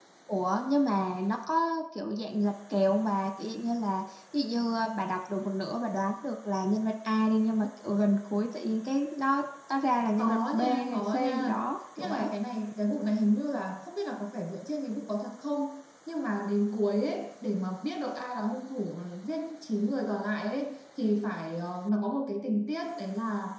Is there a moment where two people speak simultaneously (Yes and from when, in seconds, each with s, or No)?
Yes, from 10.2 s